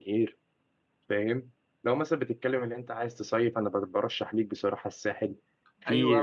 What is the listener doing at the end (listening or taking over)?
taking over